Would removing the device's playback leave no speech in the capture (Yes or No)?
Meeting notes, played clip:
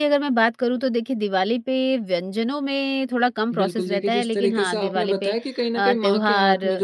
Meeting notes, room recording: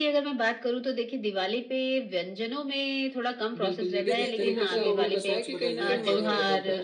No